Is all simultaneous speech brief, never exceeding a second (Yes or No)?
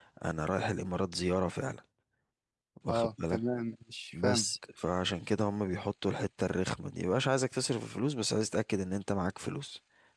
Yes